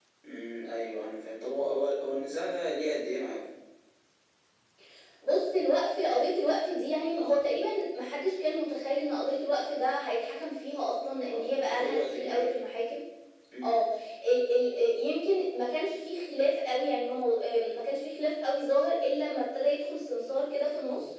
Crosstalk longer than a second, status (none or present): present